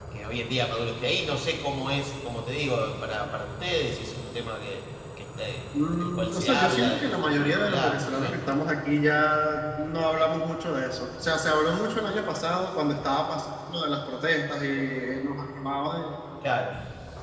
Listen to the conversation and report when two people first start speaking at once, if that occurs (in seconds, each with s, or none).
5.7 s